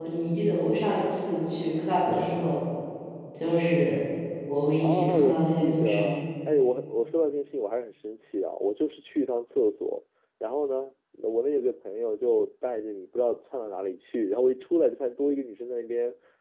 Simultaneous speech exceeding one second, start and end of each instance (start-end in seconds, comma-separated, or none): 4.8-6.2